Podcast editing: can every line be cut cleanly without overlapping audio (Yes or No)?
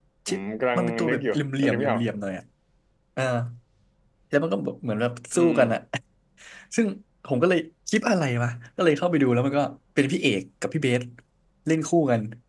No